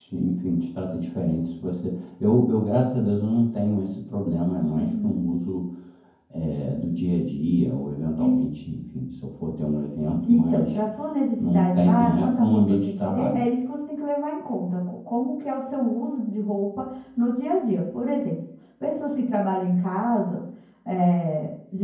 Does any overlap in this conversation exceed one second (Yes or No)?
Yes